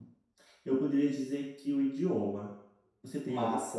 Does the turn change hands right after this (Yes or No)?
Yes